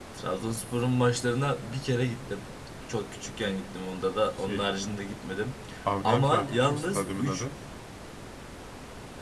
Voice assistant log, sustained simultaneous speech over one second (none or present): present